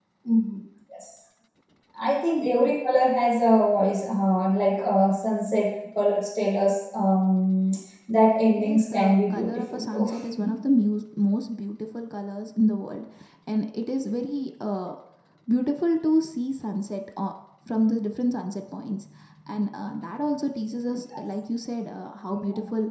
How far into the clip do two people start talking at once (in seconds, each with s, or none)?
8.6 s